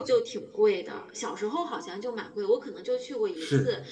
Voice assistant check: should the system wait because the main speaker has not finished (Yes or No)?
Yes